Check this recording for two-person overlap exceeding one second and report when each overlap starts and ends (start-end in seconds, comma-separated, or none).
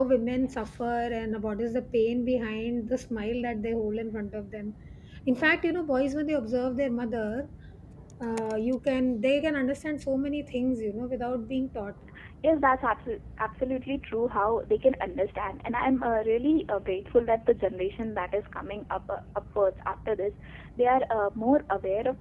none